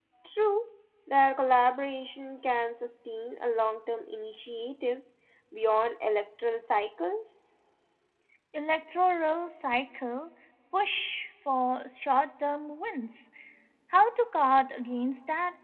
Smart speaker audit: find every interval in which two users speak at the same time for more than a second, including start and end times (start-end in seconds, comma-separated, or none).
none